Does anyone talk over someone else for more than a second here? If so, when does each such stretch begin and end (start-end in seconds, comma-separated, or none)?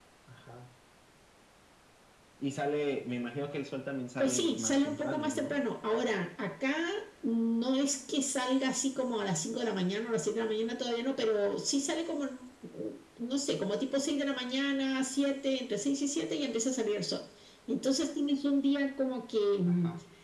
4.2-5.6